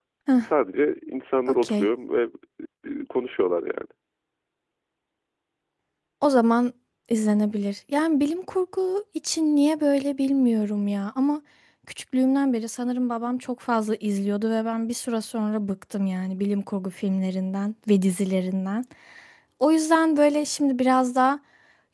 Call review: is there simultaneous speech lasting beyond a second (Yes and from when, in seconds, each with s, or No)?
No